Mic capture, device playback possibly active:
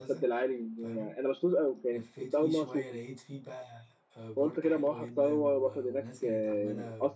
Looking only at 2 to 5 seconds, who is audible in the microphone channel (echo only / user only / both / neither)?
both